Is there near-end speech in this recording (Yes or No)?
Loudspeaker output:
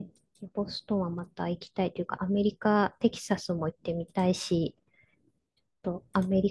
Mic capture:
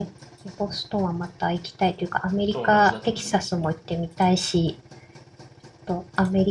Yes